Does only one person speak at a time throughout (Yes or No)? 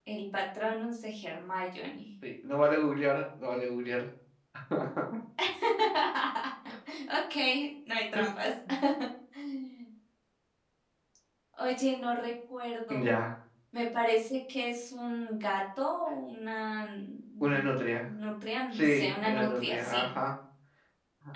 No